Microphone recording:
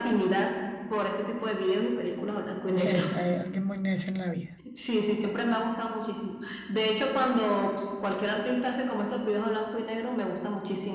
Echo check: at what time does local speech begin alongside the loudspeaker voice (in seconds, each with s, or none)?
2.7 s